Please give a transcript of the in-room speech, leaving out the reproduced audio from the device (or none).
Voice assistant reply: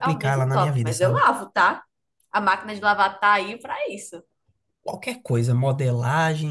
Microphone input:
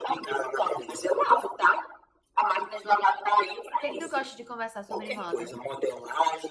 O que é que tu gosta de conversar sobre moda?